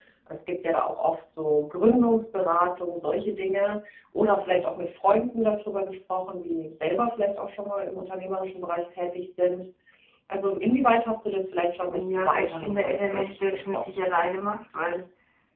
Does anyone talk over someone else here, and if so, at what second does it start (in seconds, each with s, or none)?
11.9 s